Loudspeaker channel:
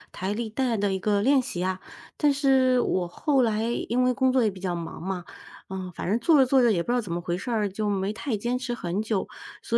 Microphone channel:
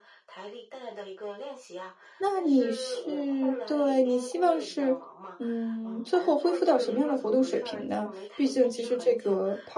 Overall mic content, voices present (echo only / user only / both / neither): both